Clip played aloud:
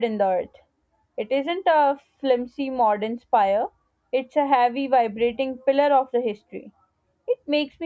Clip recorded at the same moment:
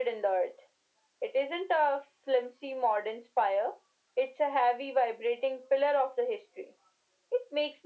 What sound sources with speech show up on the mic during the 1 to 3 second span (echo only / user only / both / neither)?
echo only